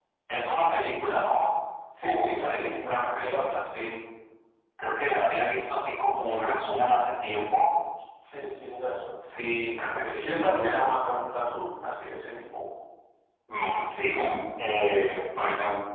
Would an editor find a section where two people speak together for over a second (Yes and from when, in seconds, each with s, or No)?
Yes, from 2.0 s